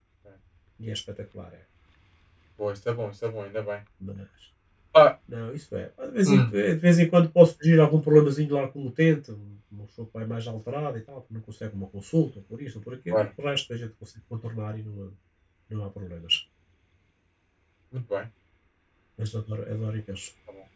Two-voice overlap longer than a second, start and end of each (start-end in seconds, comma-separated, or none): none